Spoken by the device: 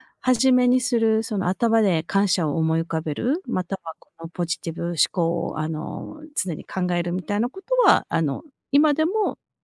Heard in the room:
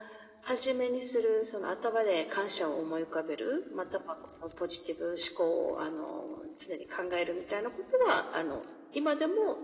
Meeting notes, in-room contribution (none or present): none